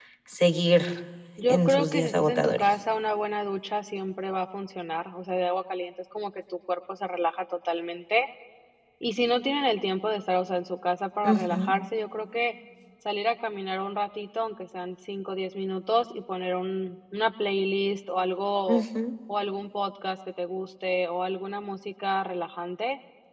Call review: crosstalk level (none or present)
present